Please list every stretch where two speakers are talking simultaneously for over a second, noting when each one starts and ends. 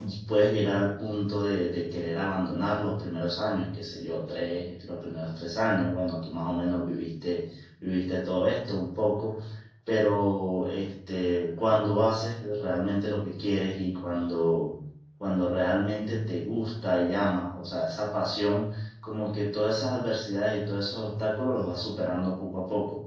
none

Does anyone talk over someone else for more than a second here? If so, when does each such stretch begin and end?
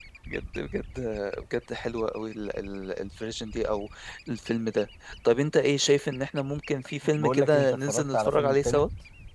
7.2-8.8

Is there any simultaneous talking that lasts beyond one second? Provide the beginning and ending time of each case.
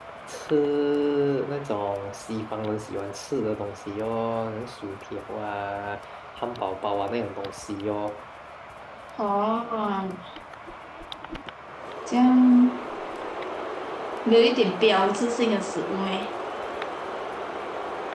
none

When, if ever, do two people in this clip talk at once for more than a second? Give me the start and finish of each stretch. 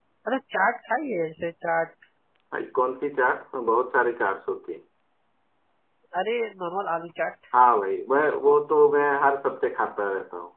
none

